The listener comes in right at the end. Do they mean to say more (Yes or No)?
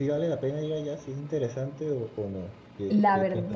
Yes